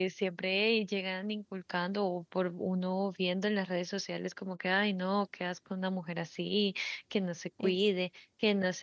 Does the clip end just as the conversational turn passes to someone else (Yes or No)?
No